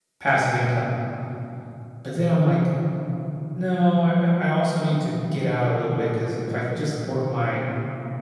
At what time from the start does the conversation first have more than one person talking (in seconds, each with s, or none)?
none